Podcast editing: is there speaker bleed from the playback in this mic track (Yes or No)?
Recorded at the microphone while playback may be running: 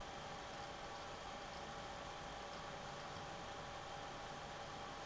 No